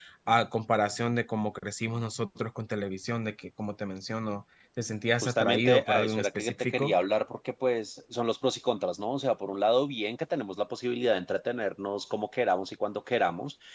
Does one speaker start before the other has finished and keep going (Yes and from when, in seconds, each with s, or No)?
Yes, from 5.2 s